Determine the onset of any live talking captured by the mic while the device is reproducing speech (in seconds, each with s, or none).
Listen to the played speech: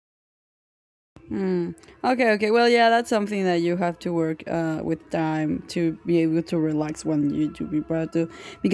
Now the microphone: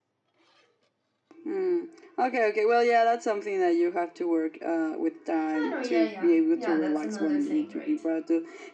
5.5 s